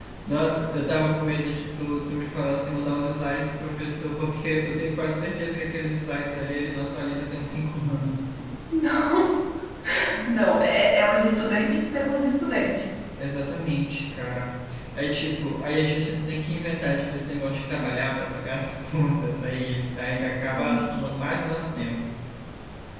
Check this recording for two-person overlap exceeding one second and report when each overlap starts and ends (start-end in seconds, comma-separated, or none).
none